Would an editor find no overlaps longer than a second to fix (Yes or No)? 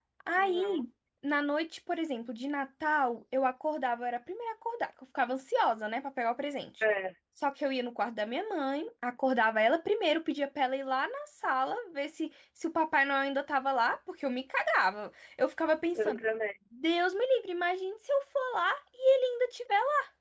Yes